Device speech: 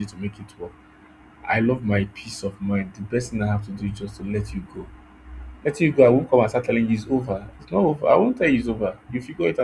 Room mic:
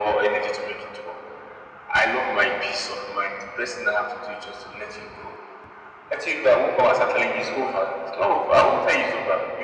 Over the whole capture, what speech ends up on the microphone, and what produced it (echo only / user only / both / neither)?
echo only